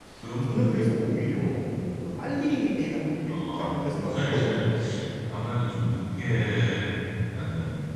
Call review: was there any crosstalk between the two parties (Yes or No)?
Yes